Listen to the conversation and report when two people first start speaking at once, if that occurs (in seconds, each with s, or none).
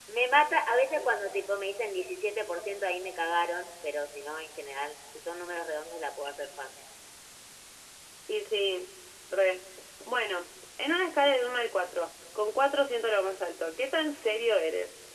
none